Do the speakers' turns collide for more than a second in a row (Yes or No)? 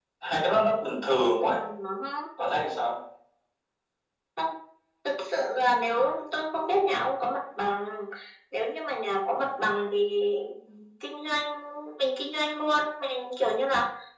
No